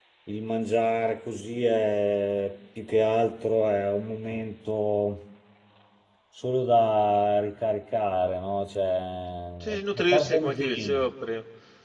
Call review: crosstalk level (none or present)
present